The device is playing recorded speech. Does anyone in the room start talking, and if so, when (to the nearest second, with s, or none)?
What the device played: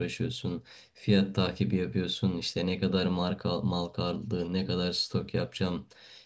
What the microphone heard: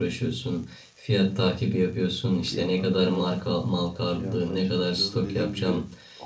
2 s